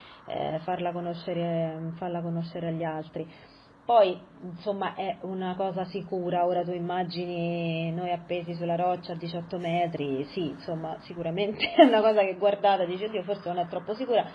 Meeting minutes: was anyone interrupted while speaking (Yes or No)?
No